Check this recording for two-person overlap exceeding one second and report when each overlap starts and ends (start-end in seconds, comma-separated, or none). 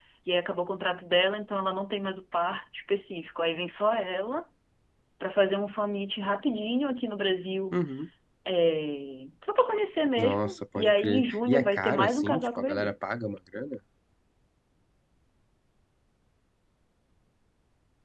10.2-12.9